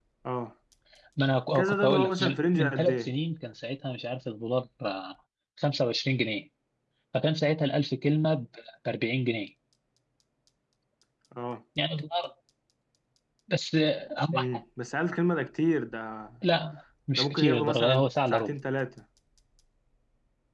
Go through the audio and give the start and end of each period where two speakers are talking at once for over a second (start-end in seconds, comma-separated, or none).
1.6-3.1, 17.2-18.6